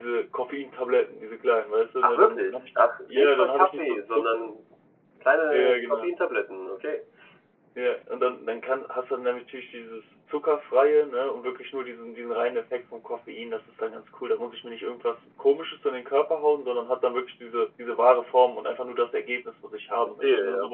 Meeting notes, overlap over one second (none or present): present